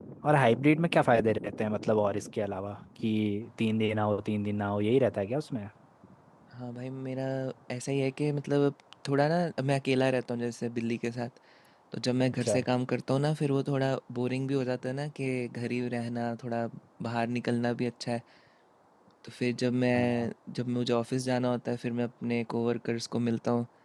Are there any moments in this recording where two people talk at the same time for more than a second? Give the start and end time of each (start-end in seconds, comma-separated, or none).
none